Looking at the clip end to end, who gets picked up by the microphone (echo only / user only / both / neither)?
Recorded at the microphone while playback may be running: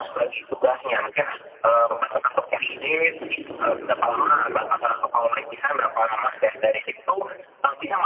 both